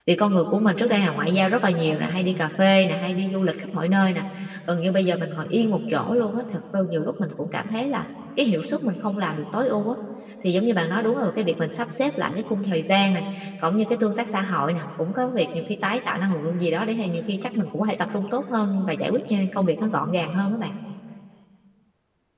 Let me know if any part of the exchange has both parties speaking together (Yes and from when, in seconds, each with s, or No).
No